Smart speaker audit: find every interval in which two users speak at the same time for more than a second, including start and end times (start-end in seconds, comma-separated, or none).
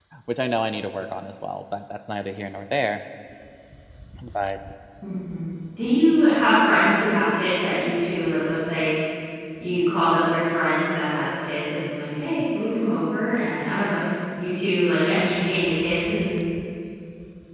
none